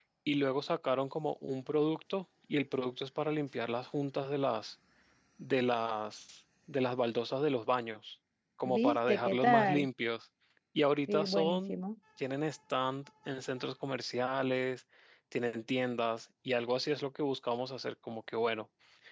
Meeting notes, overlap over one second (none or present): present